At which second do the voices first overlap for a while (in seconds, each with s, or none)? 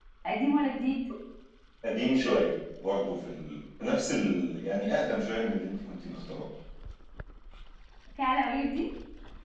none